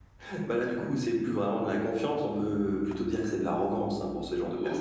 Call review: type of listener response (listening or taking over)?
taking over